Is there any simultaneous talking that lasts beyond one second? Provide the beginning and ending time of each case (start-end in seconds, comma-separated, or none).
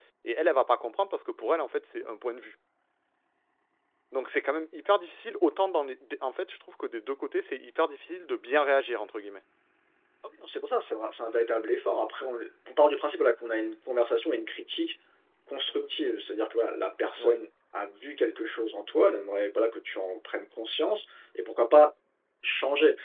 none